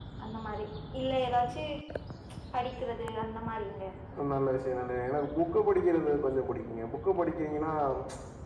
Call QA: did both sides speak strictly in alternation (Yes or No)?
Yes